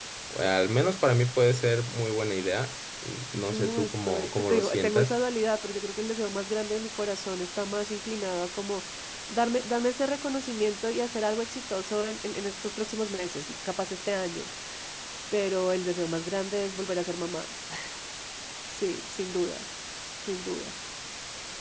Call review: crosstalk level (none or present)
present